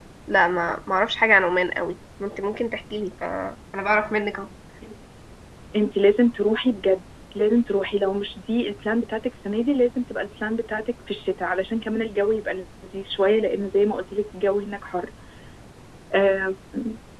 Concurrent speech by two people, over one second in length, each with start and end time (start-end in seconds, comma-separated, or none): none